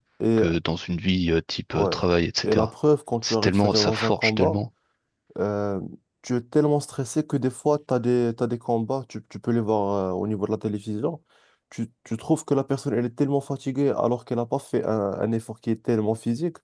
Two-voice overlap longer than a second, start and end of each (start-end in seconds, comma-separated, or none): 3.2-4.6